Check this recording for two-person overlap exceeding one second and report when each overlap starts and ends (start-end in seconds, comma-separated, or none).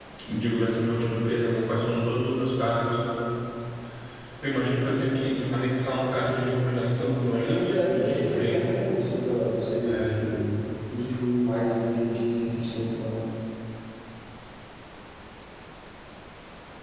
7.0-8.7